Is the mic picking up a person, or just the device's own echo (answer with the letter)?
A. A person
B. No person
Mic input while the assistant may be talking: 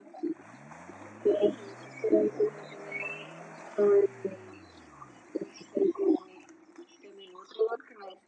B